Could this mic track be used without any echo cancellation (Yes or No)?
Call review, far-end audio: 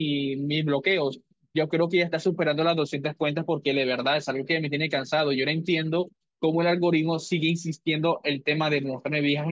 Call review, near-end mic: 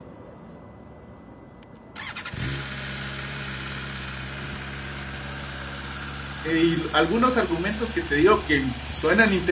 Yes